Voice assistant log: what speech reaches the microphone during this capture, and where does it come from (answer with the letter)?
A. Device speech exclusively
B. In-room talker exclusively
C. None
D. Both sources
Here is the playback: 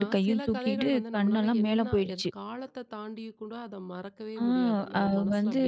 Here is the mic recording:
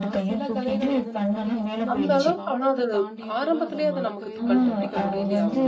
D